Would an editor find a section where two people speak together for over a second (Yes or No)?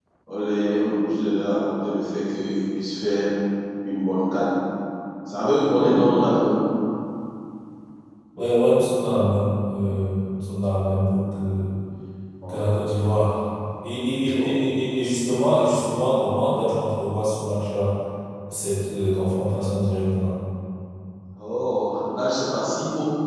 No